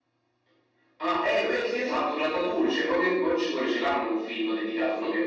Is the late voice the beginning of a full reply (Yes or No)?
Yes